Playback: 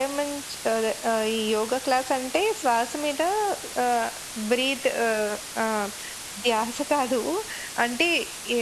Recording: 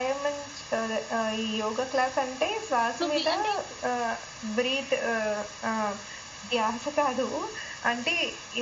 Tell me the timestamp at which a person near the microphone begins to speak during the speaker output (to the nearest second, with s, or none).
3 s